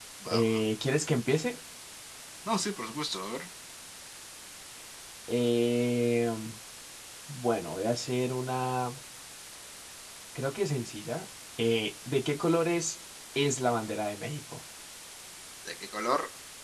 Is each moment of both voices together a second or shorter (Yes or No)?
Yes